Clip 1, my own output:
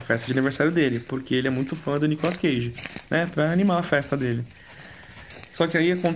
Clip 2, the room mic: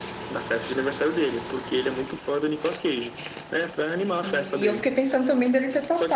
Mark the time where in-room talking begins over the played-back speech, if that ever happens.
4.2 s

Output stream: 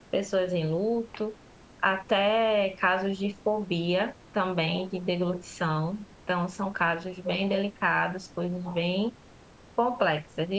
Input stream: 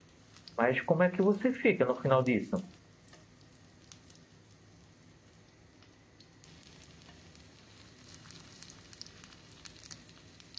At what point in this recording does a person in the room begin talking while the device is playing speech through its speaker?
0.6 s

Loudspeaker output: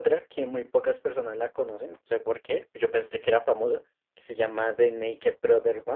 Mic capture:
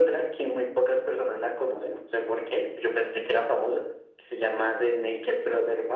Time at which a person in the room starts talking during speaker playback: none

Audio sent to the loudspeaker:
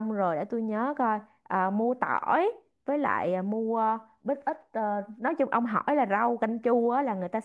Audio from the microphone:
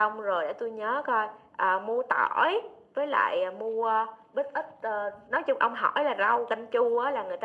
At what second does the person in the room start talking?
none

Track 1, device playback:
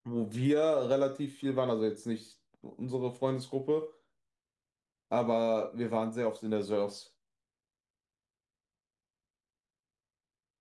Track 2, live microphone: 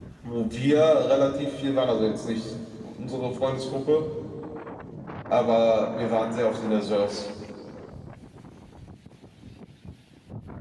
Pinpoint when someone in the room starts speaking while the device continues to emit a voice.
none

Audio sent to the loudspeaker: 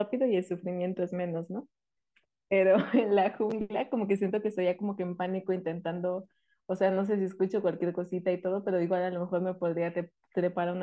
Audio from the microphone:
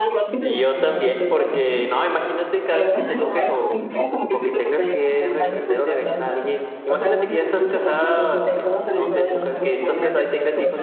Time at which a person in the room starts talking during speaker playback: 0.4 s

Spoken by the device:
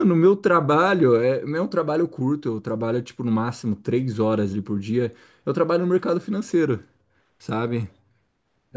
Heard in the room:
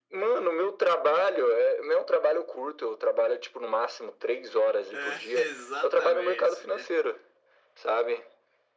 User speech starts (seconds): 4.9 s

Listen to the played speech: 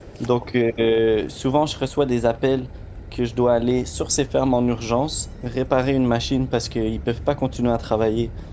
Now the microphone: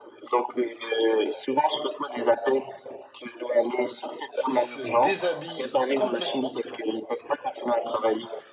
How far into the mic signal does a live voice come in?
4.5 s

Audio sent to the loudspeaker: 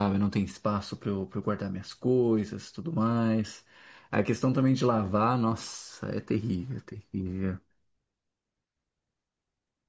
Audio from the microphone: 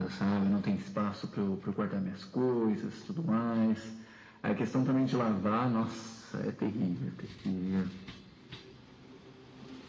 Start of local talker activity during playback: none

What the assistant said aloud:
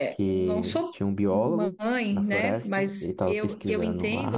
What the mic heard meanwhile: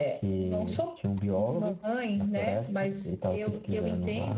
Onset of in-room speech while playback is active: none

